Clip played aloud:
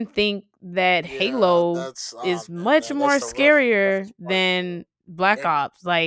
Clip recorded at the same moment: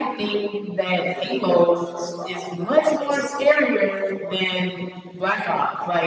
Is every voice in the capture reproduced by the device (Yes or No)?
Yes